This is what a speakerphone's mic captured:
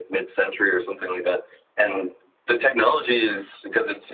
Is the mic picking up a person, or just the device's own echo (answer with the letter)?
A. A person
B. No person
B